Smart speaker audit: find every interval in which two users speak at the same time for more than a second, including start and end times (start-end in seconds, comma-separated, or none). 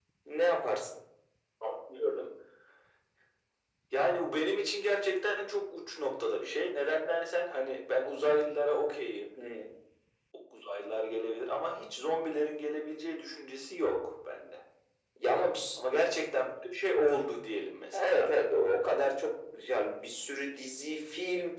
none